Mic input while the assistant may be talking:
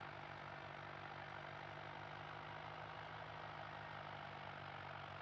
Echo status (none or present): none